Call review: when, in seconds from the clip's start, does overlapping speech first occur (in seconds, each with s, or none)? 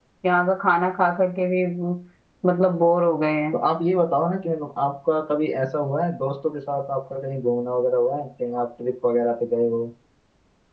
none